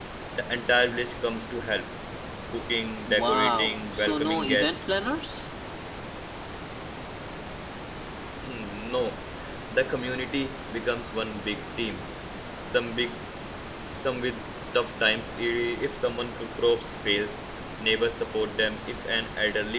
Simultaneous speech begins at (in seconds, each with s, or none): 3.1 s